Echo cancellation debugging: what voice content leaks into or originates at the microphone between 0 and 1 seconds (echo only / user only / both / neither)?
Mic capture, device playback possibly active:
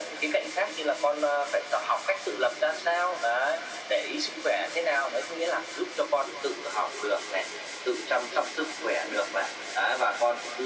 echo only